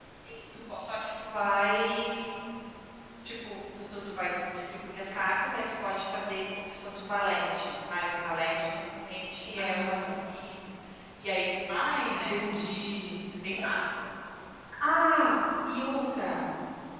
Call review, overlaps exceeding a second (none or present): none